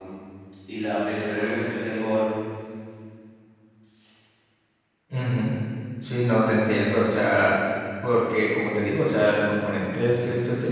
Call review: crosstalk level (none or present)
none